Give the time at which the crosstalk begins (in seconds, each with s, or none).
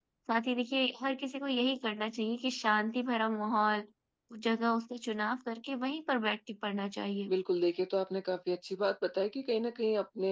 none